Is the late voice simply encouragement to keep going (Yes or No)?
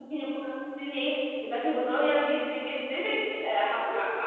No